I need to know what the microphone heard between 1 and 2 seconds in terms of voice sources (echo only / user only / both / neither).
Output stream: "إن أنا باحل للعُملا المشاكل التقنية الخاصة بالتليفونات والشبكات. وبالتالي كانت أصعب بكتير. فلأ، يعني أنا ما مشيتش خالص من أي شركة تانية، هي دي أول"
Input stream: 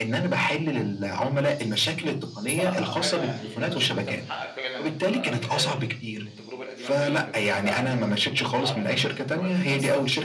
echo only